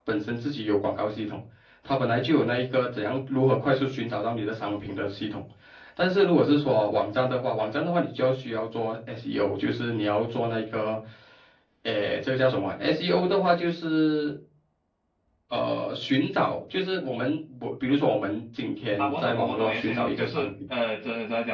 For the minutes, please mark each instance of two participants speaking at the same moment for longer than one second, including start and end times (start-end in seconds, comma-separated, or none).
19.0-20.5